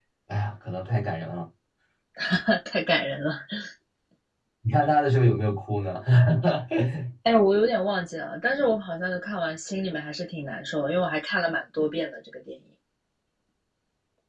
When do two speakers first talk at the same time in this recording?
none

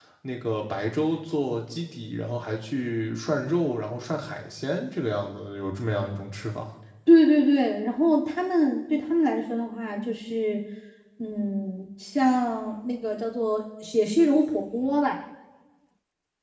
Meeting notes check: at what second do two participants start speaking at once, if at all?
none

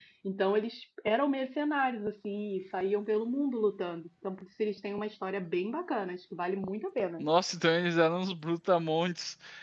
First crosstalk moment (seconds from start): none

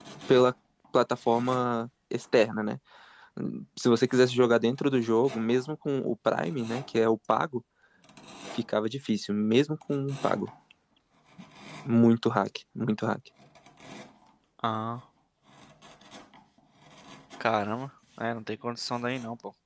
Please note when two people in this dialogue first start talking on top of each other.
none

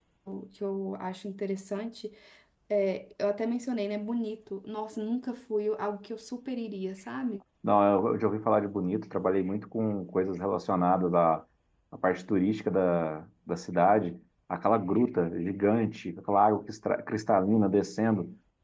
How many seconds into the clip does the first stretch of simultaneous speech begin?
none

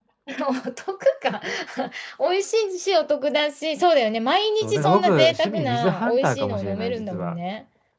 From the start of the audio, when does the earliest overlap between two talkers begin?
4.6 s

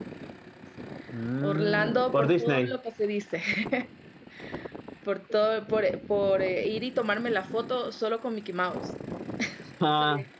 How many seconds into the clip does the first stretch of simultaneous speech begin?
1.4 s

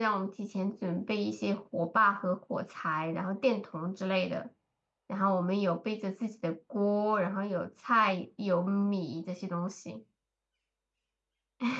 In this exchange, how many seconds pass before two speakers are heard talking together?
none

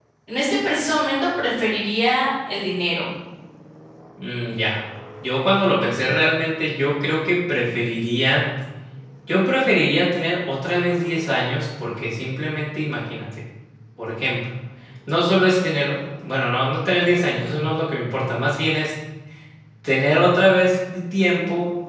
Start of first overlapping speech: none

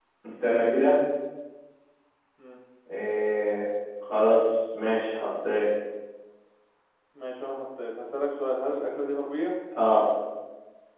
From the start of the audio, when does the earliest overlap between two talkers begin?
none

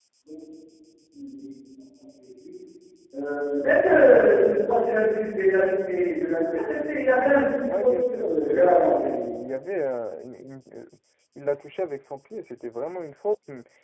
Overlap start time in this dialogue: 7.6 s

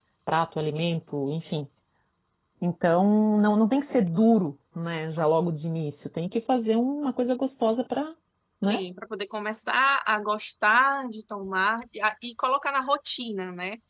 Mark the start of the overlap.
none

